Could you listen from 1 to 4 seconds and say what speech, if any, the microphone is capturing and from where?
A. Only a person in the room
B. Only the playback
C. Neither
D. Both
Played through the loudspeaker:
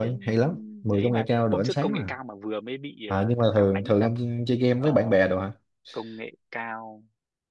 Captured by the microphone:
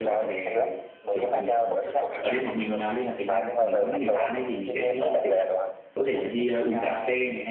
D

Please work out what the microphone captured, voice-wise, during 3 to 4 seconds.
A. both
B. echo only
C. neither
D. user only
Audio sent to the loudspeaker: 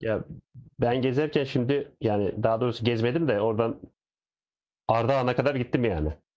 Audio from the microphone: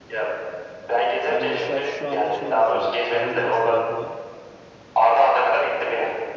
A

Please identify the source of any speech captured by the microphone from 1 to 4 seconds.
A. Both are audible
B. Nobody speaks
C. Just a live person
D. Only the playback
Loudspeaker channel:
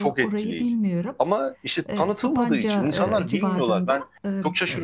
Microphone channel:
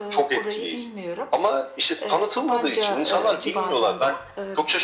D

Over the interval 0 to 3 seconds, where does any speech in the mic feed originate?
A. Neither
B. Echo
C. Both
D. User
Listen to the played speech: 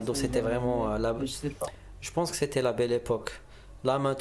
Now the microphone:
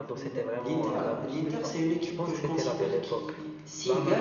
C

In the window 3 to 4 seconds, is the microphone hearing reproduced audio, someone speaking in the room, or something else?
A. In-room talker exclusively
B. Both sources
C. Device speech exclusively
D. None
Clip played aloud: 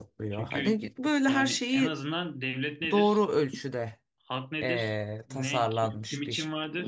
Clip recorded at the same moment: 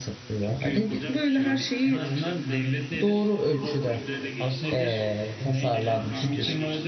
B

